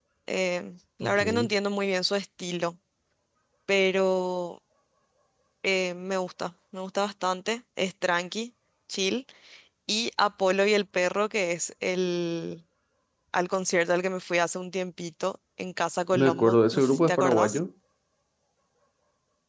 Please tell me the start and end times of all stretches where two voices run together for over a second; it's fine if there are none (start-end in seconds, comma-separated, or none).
16.1-17.6